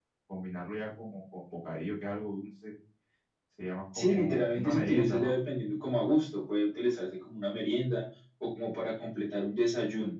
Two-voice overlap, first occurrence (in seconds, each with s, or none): 3.9 s